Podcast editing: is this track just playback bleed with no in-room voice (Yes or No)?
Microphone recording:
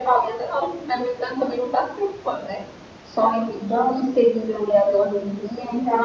Yes